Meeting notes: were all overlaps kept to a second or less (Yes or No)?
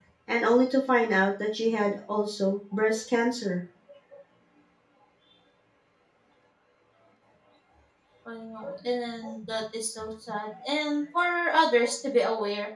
Yes